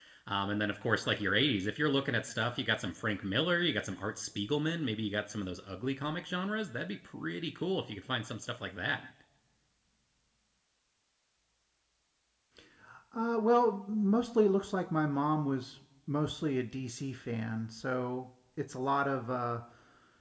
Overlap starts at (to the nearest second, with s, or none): none